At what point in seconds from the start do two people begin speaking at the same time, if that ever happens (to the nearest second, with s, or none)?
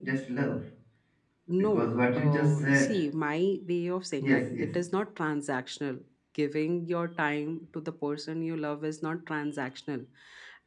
2 s